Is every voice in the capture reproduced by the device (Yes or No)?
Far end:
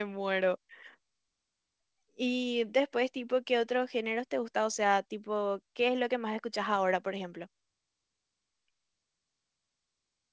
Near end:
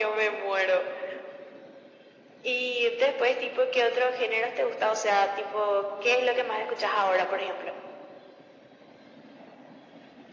Yes